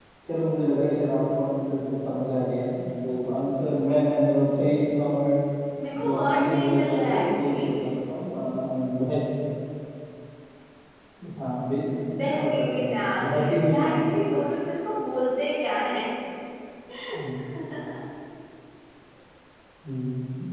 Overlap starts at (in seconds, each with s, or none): 6.0 s